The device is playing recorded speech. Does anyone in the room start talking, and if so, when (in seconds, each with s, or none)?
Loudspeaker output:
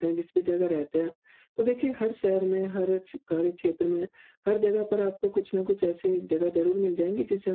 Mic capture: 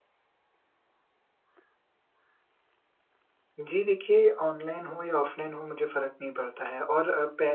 3.6 s